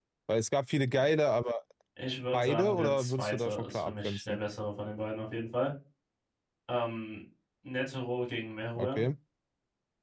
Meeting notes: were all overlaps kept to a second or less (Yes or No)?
No